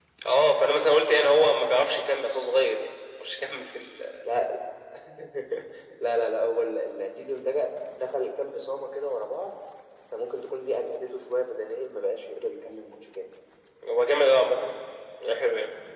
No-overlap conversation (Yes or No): Yes